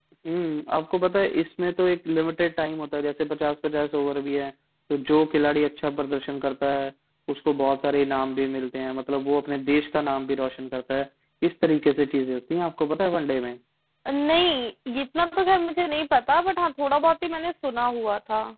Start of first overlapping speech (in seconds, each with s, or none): none